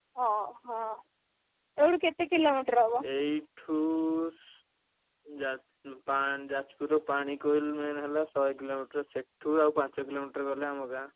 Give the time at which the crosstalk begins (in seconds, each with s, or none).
none